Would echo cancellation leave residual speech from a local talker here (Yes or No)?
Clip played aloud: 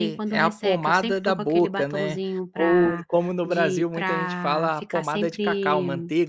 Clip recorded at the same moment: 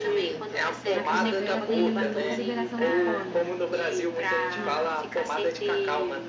Yes